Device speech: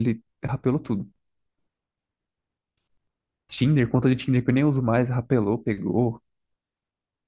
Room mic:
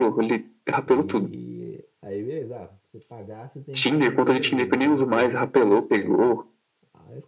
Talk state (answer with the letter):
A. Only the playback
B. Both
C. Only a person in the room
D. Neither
B